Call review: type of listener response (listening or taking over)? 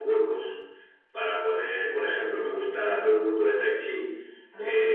listening